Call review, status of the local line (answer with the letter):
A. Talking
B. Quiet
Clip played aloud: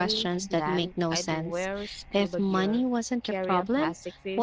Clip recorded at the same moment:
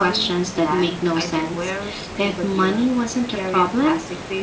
B